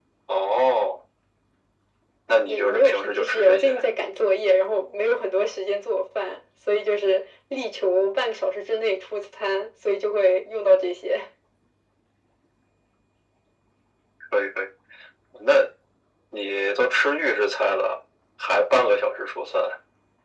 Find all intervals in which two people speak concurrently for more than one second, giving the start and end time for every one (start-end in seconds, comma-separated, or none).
2.5-3.8